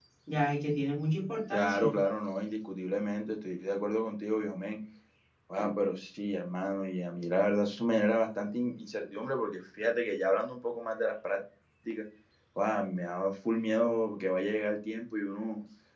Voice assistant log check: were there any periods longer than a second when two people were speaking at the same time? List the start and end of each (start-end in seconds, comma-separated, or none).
none